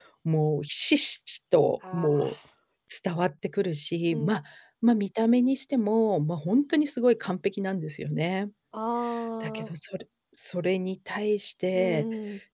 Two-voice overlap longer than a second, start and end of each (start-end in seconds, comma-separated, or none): none